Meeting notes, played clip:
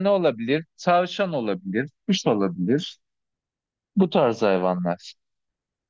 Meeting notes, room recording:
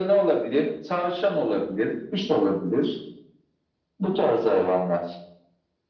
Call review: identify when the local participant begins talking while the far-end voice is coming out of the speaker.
none

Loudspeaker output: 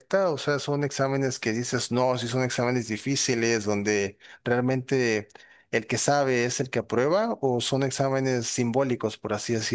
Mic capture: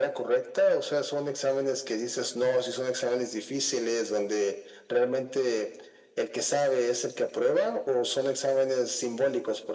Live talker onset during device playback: none

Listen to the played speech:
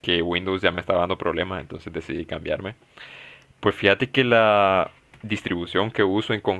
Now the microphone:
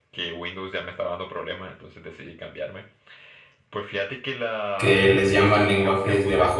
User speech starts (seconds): 4.8 s

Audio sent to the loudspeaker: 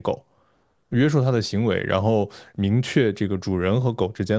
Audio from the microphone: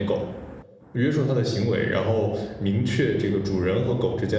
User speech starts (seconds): none

